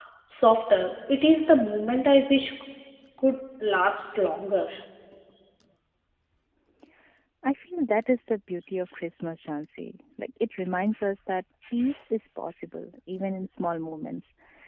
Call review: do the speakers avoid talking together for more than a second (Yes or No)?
Yes